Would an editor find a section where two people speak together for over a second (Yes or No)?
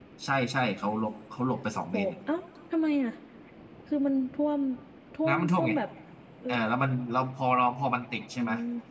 No